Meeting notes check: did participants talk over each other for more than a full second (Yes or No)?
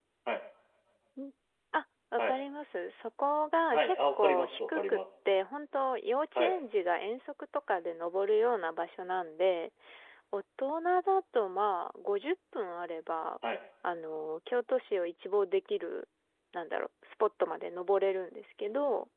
Yes